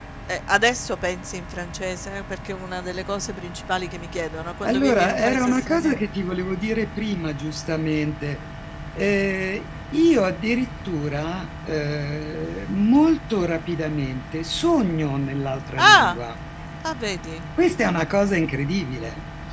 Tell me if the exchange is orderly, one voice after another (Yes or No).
No